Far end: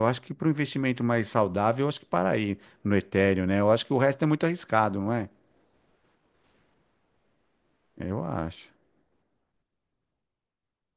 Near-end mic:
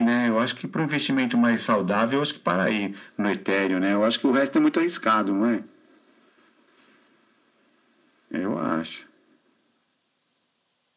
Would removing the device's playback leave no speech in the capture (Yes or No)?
Yes